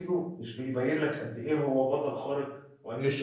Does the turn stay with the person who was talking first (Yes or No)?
Yes